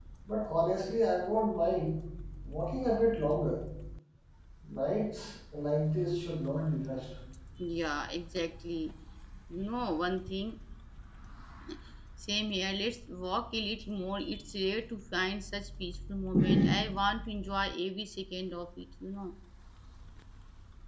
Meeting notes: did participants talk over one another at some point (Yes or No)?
No